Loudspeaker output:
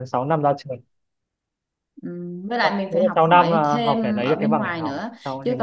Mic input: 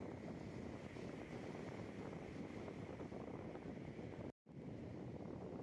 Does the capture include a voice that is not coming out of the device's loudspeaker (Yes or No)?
No